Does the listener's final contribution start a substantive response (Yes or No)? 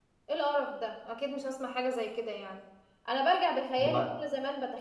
No